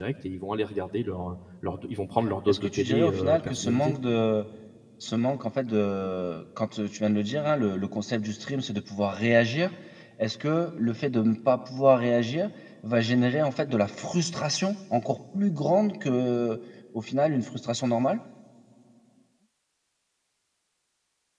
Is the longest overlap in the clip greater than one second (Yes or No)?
Yes